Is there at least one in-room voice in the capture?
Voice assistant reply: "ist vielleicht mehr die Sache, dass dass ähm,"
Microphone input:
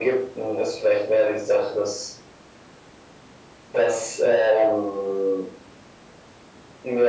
No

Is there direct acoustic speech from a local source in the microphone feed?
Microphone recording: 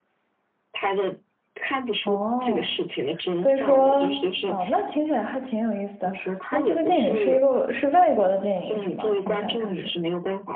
Yes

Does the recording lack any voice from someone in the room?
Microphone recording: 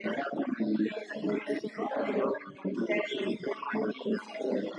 Yes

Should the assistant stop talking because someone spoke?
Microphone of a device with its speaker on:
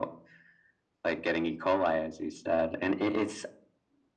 No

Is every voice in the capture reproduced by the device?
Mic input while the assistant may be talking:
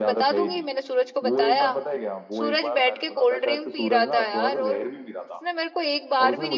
No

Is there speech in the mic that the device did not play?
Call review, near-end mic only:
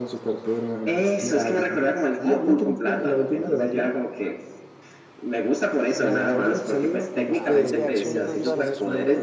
Yes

